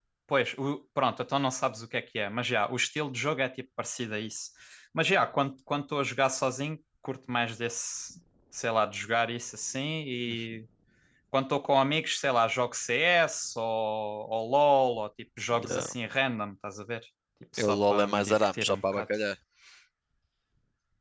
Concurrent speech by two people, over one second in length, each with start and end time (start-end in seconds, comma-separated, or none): 17.6-19.0